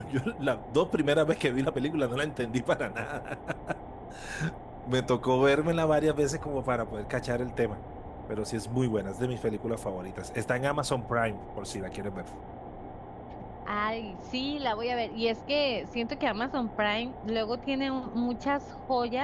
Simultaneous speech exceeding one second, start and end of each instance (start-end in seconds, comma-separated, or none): none